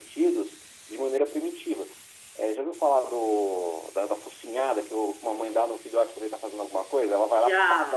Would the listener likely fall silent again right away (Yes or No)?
Yes